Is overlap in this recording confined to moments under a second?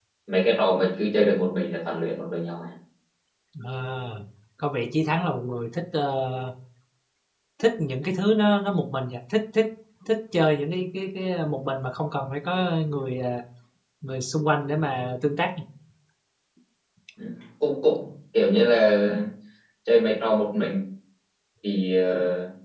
Yes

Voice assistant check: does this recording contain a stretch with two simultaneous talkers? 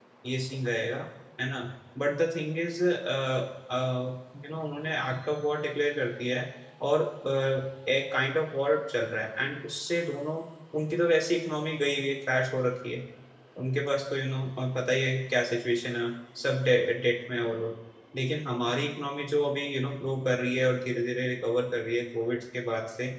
No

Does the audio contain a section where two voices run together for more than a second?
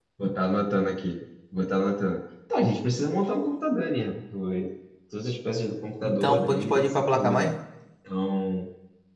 Yes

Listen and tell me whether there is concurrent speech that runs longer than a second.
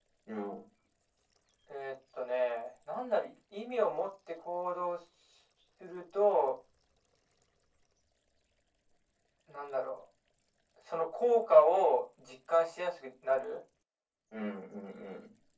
No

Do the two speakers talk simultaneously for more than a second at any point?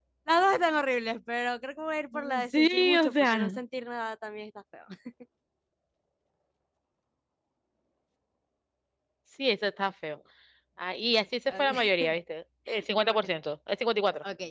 Yes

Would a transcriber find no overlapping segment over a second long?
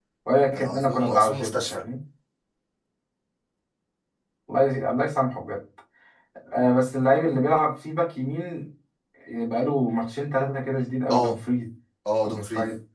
No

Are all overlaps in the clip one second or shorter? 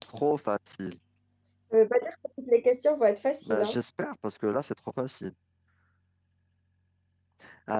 Yes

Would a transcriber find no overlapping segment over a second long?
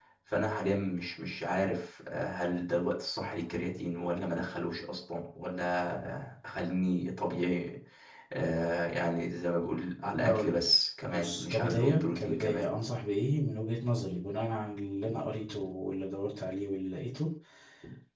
No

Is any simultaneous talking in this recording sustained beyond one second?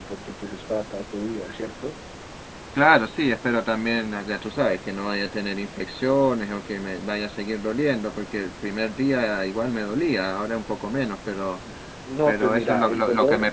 Yes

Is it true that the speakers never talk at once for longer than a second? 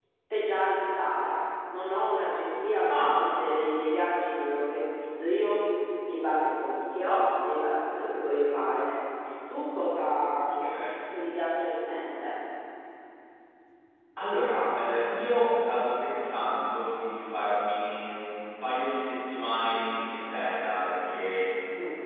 Yes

